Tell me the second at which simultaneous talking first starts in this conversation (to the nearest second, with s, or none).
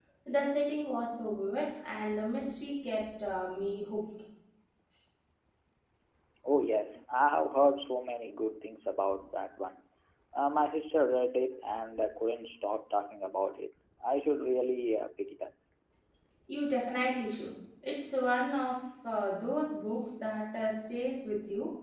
none